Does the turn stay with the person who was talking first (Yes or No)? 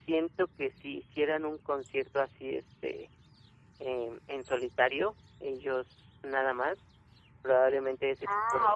No